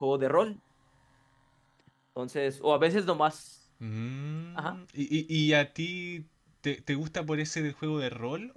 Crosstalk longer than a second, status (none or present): none